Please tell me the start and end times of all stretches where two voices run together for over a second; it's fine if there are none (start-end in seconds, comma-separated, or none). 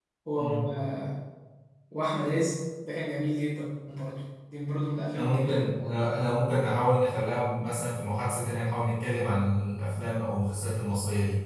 none